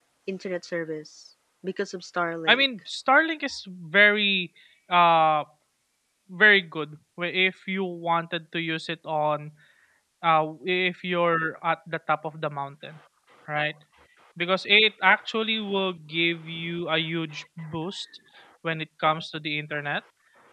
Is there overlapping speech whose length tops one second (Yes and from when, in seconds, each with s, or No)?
No